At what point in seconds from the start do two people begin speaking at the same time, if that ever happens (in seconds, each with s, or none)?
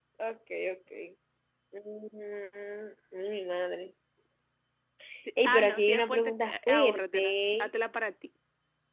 5.4 s